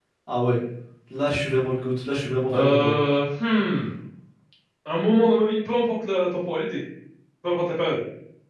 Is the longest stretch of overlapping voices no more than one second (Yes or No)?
Yes